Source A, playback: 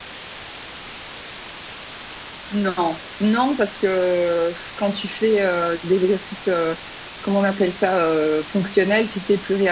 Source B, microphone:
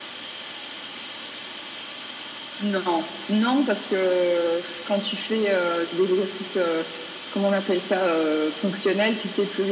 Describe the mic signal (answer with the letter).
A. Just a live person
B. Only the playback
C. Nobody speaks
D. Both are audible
B